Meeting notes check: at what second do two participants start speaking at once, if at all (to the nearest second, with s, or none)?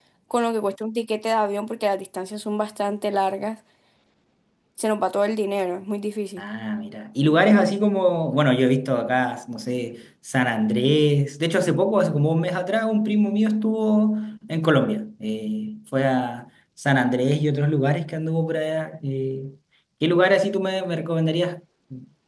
none